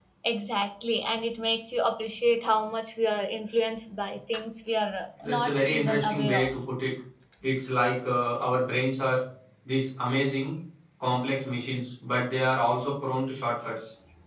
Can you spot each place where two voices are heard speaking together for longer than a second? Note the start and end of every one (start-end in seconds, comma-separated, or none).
5.2-6.6